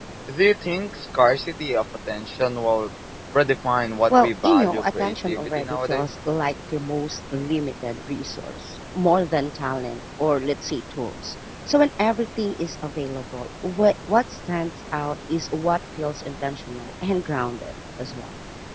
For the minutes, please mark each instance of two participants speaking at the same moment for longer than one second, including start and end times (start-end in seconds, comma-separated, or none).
4.2-6.1